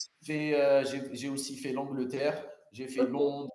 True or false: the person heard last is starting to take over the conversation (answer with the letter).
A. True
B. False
B